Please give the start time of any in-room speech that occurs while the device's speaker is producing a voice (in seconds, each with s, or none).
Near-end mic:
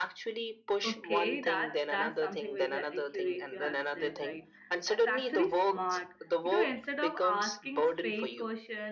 0.9 s